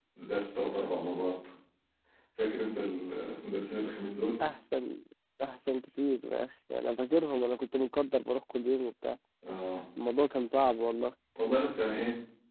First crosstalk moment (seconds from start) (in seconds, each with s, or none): none